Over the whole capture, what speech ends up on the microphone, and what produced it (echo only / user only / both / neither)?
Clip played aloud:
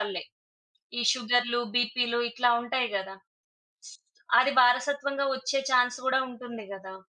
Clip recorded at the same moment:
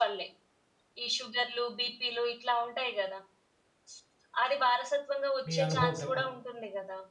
both